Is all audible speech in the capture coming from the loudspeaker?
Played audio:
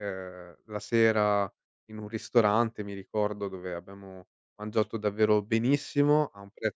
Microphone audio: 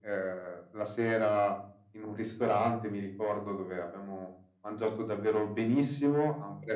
Yes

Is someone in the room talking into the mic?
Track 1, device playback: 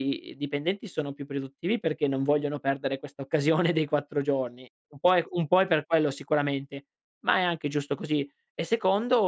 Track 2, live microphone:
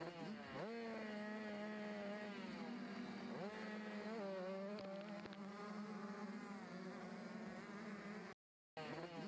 No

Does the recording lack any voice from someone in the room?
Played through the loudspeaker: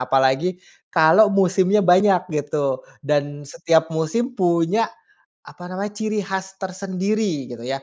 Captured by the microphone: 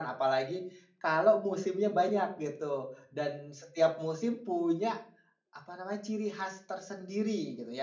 Yes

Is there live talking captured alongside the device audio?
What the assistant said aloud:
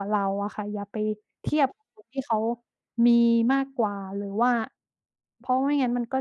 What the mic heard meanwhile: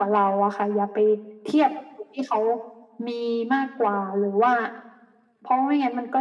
No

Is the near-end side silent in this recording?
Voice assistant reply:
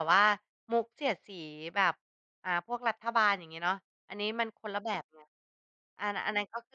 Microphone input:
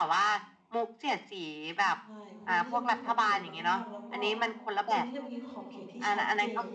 No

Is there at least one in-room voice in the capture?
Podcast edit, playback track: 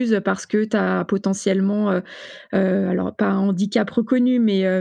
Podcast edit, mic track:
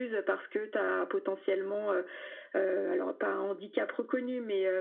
No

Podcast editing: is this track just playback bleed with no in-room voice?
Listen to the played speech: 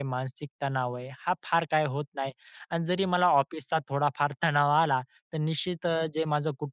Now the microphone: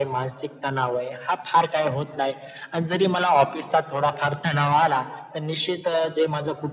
Yes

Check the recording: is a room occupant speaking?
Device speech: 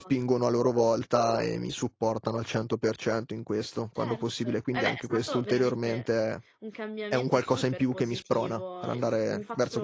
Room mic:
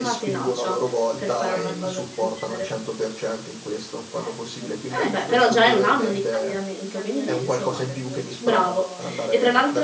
Yes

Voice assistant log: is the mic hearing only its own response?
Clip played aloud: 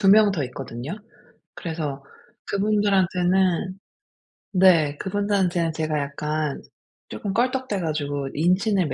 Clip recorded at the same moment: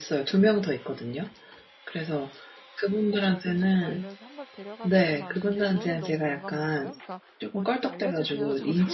No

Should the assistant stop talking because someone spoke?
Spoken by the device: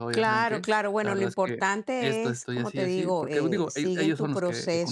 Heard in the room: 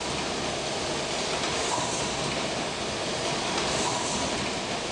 No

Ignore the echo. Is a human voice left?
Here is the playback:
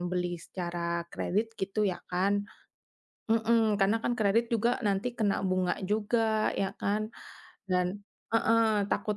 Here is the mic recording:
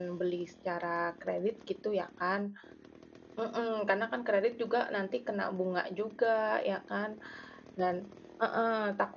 No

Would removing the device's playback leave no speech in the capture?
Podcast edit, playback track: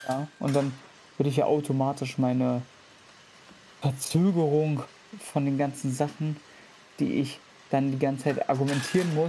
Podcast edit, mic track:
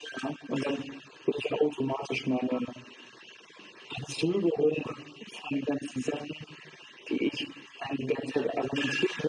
Yes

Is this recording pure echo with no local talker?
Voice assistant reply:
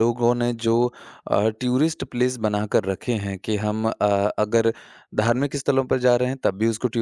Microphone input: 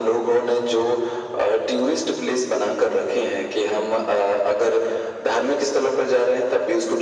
Yes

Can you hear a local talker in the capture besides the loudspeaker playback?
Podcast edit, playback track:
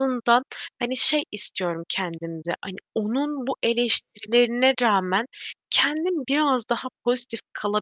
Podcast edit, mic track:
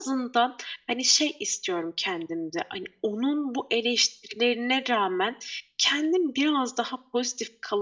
No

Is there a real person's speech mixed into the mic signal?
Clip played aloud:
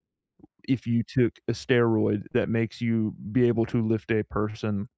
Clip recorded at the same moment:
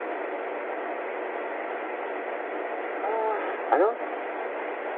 Yes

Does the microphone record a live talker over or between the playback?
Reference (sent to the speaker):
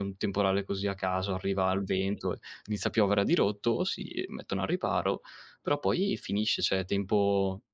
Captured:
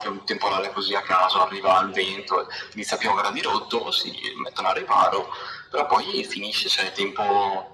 No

